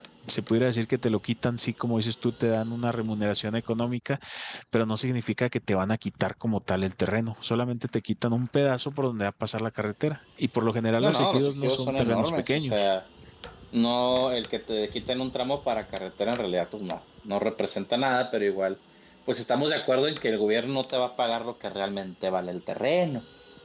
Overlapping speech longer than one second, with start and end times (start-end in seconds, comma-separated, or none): 11.0-12.9